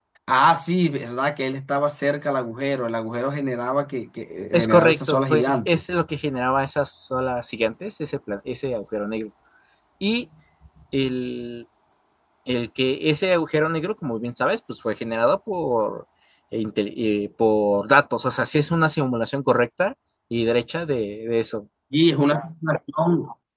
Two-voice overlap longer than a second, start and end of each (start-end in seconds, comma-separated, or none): 4.5-5.9